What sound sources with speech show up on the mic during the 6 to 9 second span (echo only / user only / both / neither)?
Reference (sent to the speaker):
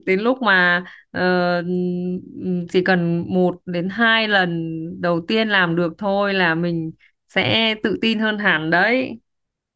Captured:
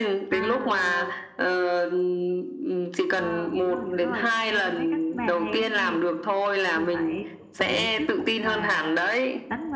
both